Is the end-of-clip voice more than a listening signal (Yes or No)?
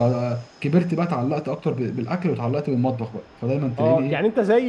Yes